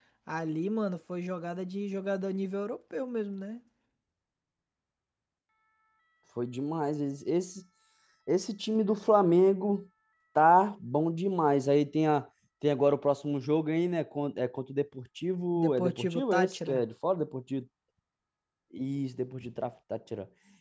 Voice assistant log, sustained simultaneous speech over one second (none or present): present